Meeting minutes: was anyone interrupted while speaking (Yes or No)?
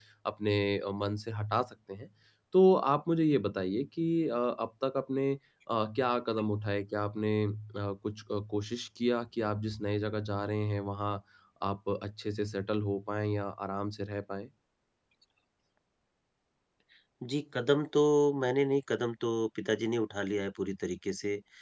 No